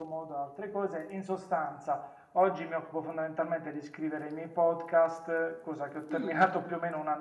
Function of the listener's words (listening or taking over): listening